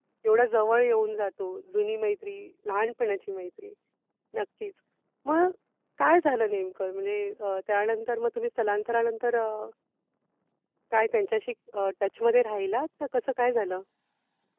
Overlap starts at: none

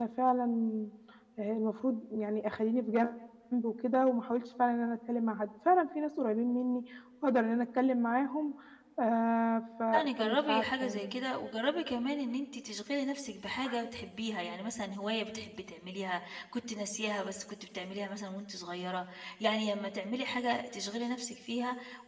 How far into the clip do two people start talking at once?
9.9 s

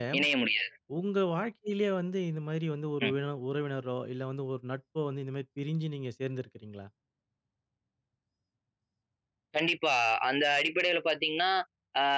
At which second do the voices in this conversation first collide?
none

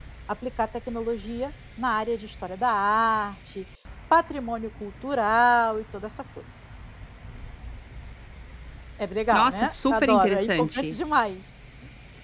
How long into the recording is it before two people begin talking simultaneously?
9.3 s

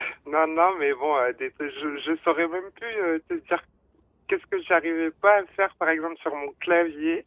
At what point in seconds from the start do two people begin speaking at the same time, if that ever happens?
none

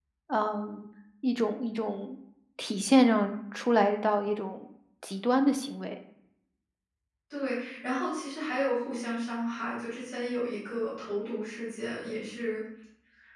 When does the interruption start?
none

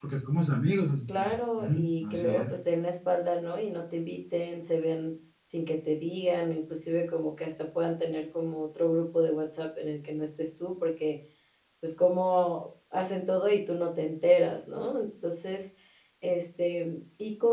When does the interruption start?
1.2 s

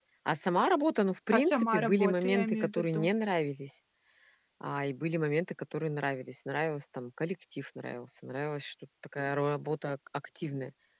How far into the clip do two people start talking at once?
1.3 s

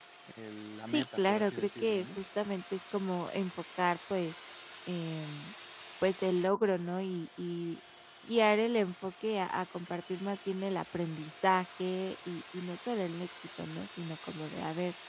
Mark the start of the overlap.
0.9 s

